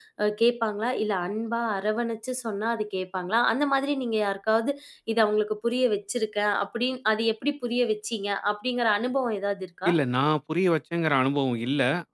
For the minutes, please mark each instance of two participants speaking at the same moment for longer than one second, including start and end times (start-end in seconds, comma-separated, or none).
none